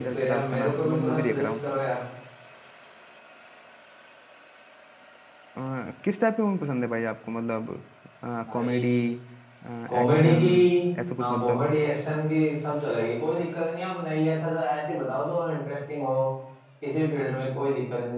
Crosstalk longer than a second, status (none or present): present